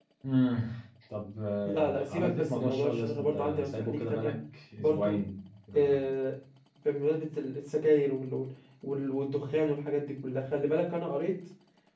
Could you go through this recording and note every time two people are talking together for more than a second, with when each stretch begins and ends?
1.6-4.3

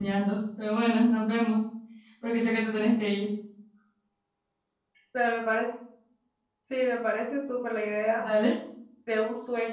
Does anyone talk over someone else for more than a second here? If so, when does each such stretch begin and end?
none

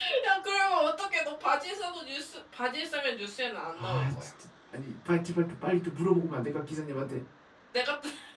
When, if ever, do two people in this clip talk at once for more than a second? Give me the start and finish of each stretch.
none

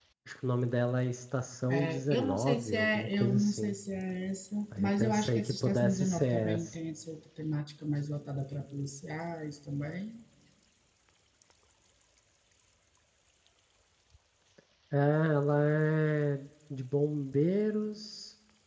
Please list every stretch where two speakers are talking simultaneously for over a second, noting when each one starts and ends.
1.7-3.7, 4.8-6.7

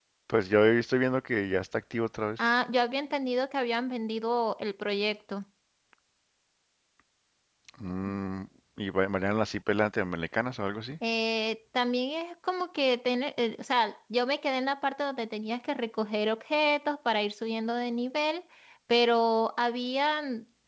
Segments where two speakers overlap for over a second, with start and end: none

